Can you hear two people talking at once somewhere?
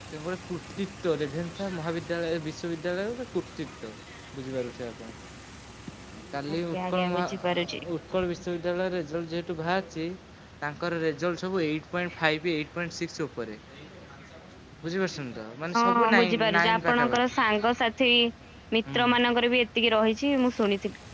Yes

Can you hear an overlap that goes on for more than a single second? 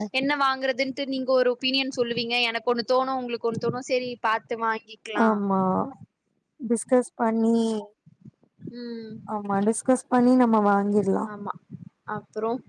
No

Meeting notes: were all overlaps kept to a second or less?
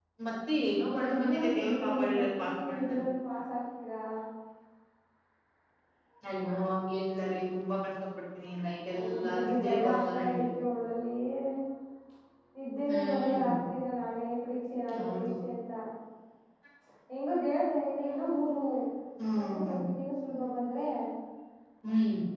No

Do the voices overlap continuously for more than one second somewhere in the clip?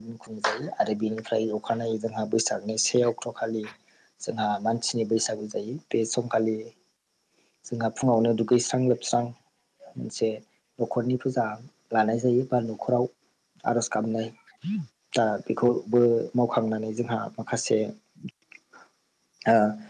No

